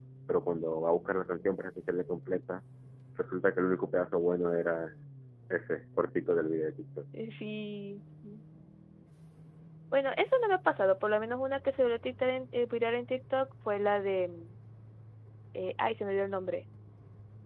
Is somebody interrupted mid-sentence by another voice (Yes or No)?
No